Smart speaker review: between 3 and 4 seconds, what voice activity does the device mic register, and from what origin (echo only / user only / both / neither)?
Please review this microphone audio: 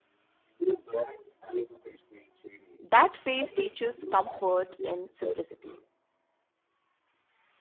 both